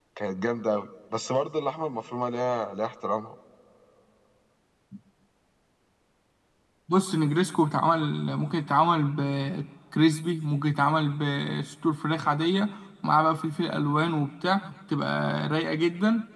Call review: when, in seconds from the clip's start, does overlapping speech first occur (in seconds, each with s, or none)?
none